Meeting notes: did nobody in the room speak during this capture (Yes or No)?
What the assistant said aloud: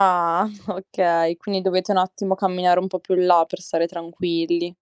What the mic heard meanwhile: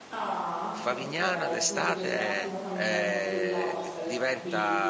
No